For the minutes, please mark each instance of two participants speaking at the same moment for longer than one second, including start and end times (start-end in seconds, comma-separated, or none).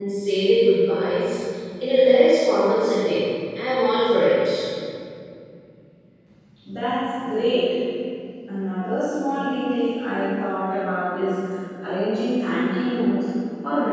none